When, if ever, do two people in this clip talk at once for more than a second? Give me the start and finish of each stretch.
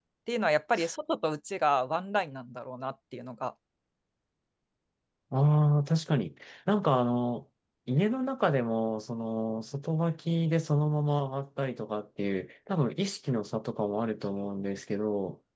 none

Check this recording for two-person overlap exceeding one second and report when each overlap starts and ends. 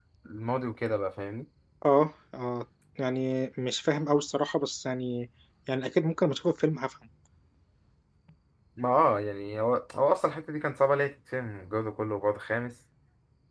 none

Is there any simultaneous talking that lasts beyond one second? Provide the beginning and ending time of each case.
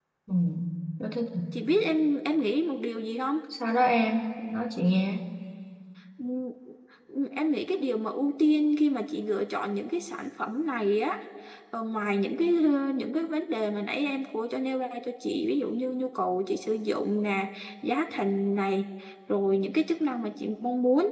none

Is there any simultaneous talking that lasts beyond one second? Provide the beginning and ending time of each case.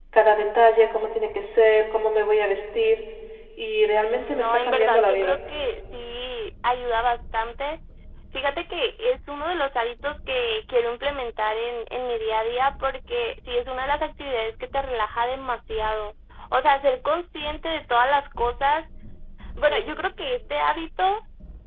4.1-5.4

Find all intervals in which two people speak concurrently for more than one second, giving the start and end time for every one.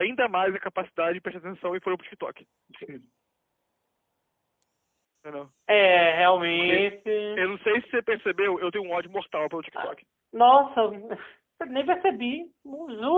none

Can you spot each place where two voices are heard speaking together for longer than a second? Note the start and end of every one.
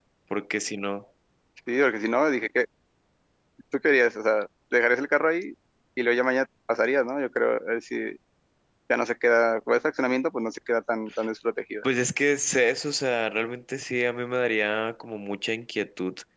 none

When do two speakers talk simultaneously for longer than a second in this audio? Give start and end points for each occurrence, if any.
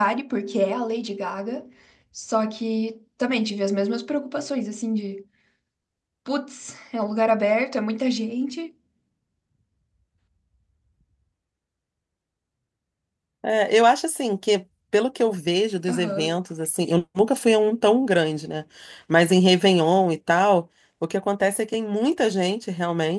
none

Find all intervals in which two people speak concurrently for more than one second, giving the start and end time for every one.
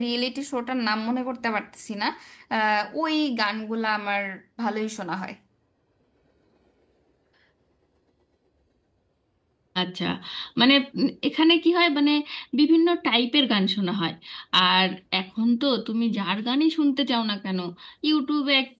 none

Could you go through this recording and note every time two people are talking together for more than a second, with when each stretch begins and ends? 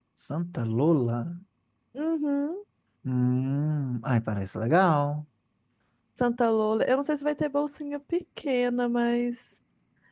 none

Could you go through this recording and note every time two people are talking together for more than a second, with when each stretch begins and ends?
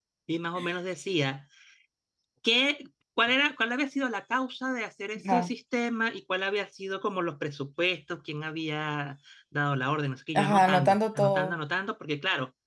10.3-11.6

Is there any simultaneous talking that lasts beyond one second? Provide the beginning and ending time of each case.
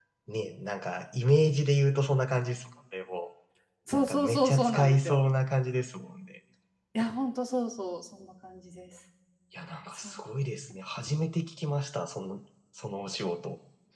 4.0-5.2

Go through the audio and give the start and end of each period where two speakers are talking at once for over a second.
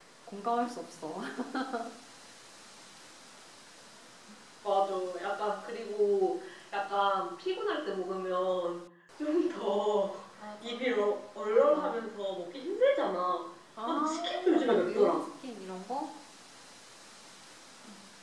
13.9-15.2

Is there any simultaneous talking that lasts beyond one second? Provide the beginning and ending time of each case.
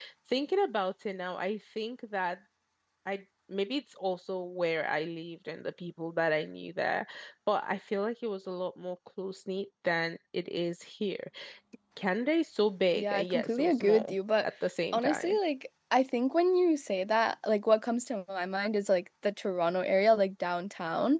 12.9-14.4

